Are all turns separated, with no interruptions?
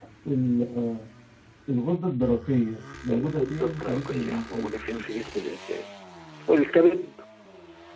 No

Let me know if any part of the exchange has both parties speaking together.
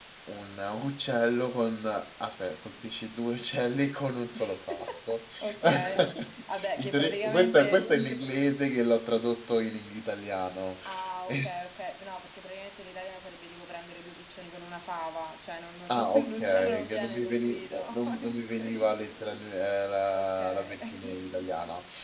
Yes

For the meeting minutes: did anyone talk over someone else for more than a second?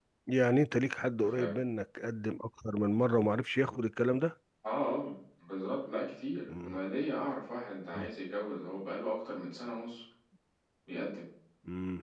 No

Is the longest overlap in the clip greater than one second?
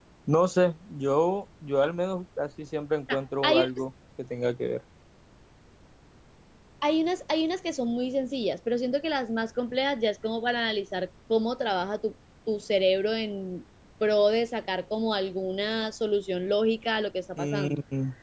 No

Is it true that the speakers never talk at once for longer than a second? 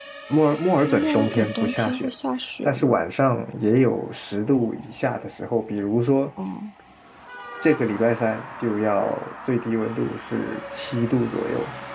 No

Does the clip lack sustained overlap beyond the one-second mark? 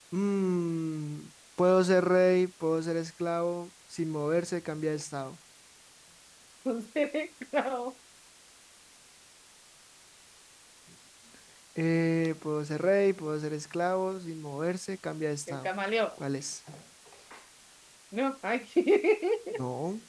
Yes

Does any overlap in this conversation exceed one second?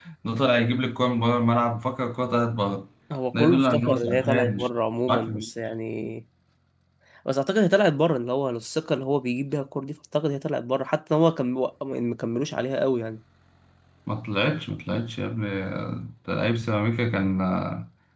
Yes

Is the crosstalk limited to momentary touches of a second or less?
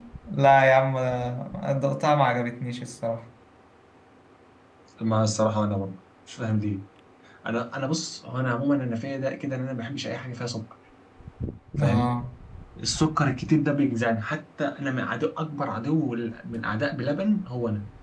Yes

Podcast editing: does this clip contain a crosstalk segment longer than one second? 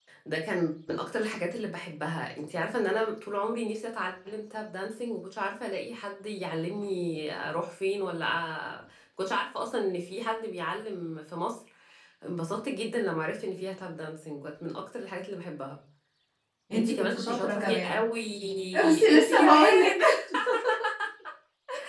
Yes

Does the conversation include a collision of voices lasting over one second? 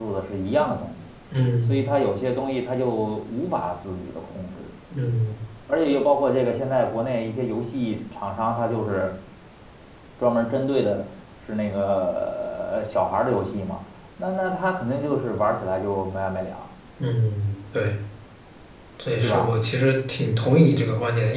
No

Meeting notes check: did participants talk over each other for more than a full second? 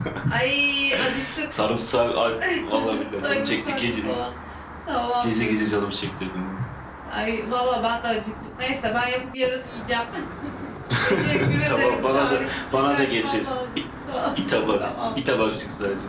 Yes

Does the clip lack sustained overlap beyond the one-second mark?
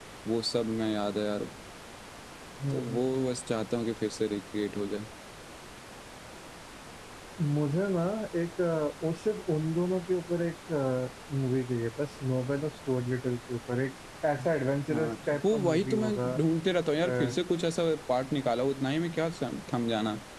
No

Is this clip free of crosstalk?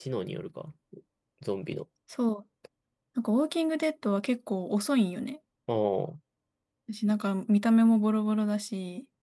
Yes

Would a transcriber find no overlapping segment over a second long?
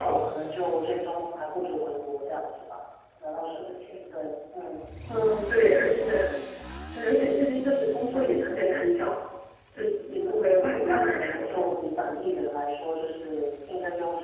No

